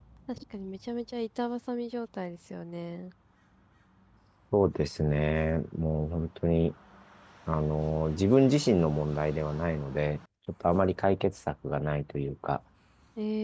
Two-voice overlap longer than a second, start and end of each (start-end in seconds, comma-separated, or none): none